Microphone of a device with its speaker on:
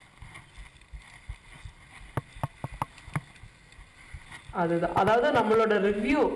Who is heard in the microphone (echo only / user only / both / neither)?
user only